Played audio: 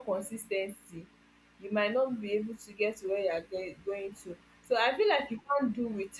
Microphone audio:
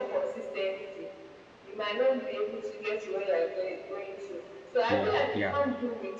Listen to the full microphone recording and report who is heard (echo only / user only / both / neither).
both